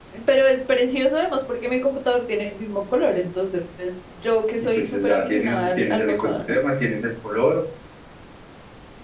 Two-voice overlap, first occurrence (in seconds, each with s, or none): 4.6 s